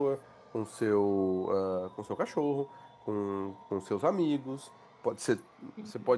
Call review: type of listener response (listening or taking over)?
listening